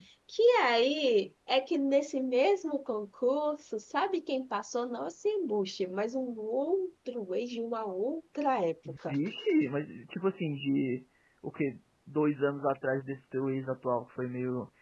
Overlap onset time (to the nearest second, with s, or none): none